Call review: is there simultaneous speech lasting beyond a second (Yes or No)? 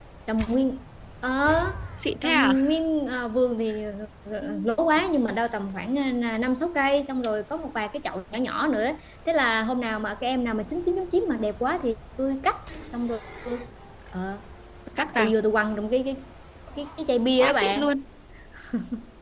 No